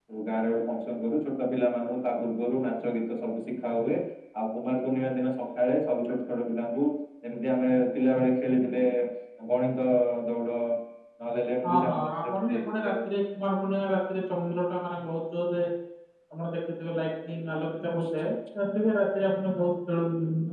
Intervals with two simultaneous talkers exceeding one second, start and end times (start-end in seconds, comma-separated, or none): 11.6-12.9